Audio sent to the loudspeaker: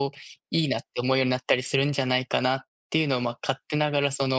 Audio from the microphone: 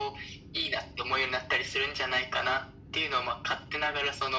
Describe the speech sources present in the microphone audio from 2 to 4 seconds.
echo only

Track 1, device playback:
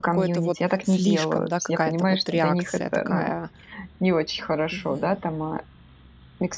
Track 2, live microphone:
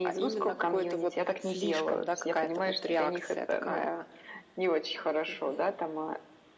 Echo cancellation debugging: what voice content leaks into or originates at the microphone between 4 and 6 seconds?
echo only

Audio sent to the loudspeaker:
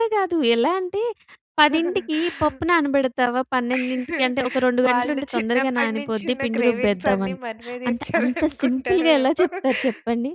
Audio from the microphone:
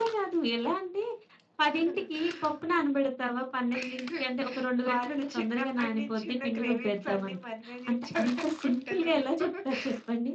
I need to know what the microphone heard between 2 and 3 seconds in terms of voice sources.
echo only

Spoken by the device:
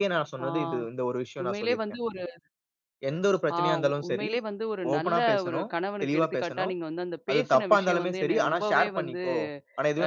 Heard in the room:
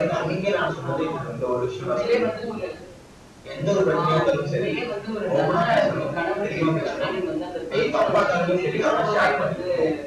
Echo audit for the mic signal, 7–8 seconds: echo only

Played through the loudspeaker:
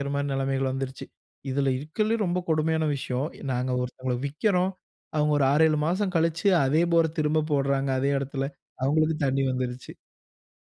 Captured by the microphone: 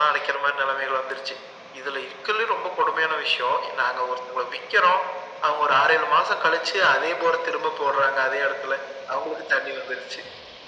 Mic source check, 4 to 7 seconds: echo only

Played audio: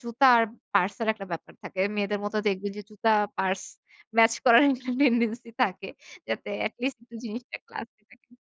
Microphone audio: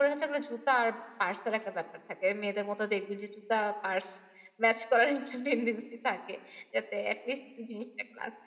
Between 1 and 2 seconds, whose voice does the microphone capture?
echo only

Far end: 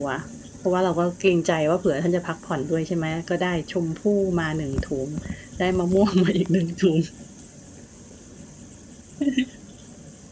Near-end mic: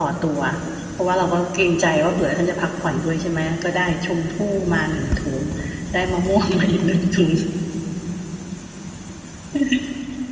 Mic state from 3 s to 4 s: echo only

